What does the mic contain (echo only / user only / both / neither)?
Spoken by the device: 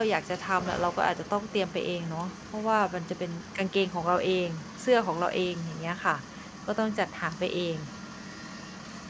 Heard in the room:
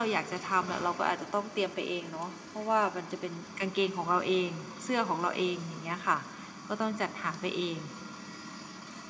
echo only